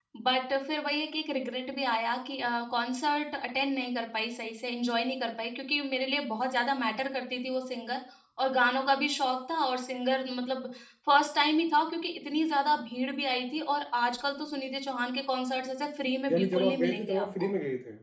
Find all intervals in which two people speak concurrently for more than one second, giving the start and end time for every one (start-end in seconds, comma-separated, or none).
16.3-17.5